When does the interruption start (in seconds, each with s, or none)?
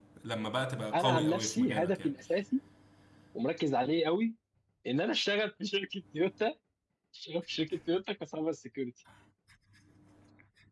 0.9 s